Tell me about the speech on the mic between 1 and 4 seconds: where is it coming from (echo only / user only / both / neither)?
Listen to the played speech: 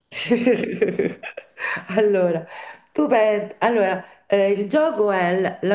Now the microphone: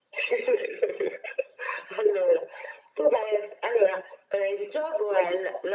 echo only